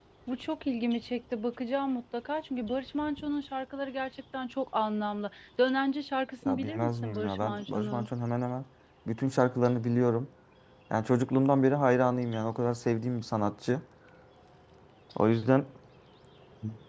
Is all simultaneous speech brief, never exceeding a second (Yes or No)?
No